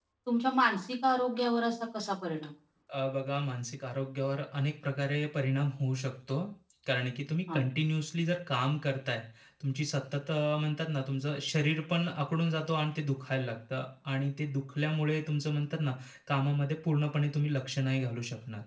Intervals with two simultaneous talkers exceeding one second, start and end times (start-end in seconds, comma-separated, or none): none